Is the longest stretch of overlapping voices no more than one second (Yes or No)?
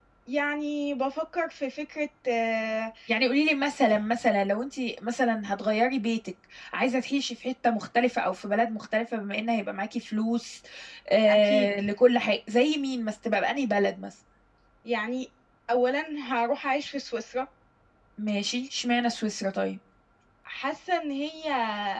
Yes